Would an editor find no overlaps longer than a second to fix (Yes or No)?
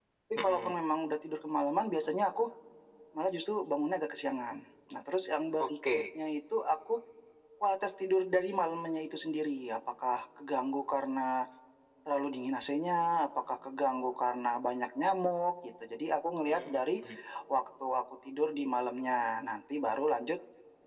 Yes